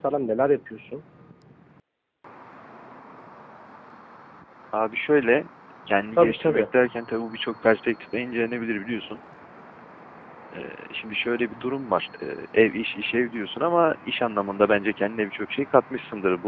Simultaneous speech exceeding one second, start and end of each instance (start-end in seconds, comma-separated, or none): none